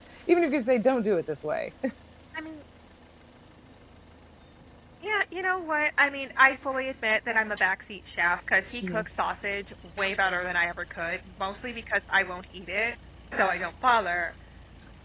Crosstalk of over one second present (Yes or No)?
No